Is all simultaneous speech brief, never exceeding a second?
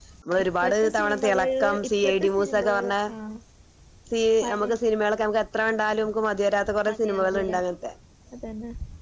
No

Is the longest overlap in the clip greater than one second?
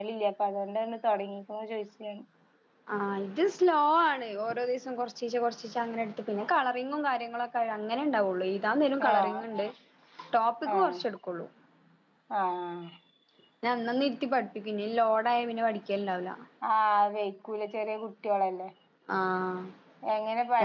No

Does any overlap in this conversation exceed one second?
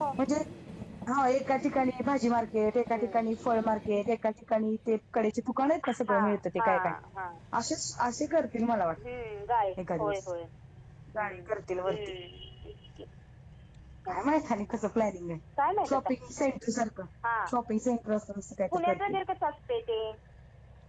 No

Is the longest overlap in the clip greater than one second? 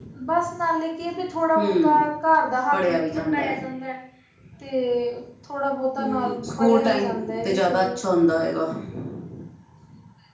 Yes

